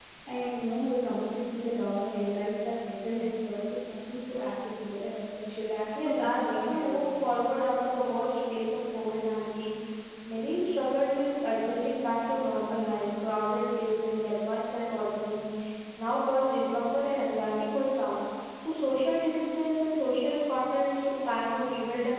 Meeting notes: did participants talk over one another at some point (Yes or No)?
Yes